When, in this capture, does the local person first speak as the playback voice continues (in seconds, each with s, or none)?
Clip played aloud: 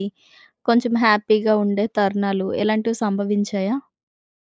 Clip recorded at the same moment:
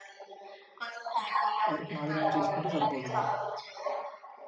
1.7 s